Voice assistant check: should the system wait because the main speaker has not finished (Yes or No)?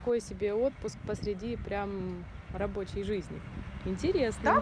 No